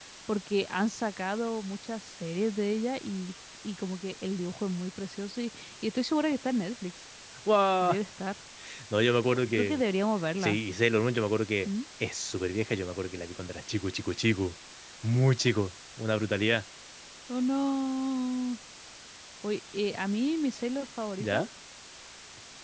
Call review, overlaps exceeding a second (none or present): none